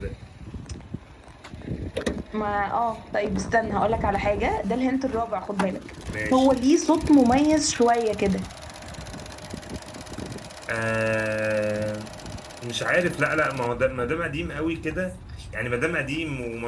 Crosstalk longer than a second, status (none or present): none